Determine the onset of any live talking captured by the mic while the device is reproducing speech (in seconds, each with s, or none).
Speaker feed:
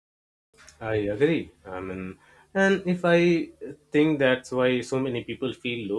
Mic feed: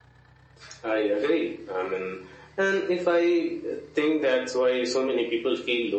none